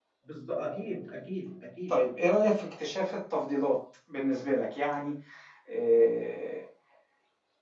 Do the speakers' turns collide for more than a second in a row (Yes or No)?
No